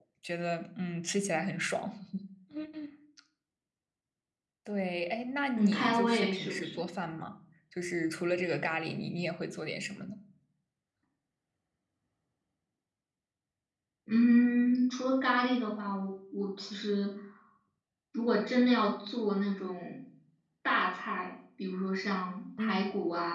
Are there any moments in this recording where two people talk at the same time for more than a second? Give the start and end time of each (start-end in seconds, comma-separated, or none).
5.6-6.8